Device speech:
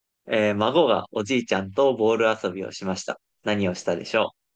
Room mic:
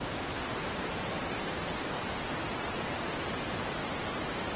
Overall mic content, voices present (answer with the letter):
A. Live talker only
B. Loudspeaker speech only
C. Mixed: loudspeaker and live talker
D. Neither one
D